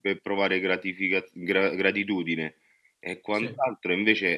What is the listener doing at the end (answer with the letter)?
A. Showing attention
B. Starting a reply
A